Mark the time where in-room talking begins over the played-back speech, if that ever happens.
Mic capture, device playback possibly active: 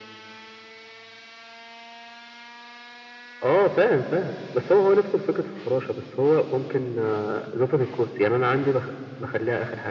none

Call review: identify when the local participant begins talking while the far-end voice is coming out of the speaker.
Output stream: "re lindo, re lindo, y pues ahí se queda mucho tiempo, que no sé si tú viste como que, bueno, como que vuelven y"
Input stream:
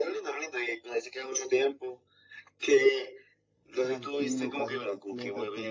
4 s

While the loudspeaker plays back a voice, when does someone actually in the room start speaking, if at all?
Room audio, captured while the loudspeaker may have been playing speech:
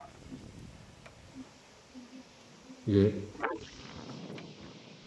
3 s

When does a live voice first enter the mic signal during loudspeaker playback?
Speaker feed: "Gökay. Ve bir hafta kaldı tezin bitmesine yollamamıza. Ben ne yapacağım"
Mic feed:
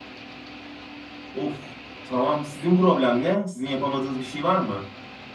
1 s

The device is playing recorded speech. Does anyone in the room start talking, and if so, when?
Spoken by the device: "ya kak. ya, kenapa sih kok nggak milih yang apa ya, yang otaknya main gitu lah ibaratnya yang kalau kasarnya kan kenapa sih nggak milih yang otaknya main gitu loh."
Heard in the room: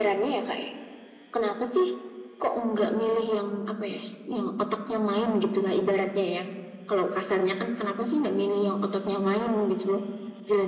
none

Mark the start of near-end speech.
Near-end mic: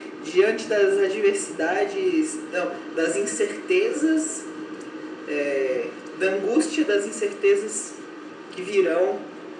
none

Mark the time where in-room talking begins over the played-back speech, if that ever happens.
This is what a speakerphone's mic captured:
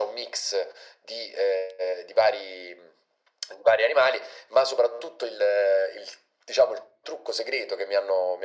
none

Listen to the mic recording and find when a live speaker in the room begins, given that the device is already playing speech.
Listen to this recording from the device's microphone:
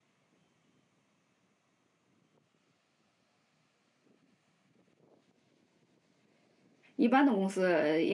7 s

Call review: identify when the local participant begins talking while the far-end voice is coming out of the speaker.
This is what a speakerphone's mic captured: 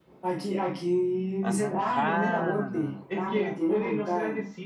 1 s

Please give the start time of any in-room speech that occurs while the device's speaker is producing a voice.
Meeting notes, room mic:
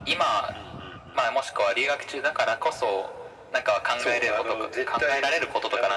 none

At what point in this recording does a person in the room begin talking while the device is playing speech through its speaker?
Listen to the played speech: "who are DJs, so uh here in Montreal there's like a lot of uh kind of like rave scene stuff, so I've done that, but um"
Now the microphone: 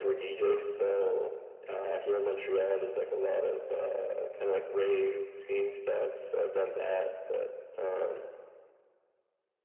none

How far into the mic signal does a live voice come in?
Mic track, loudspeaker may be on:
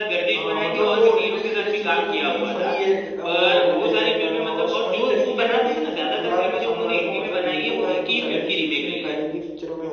none

